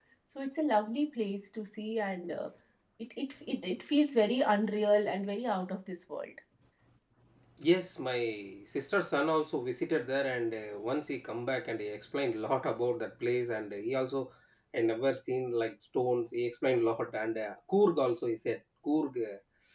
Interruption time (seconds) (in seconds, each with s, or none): none